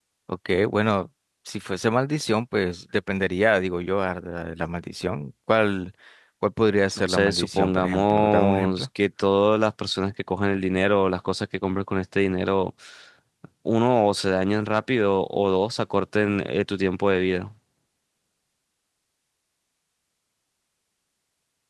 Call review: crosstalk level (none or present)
present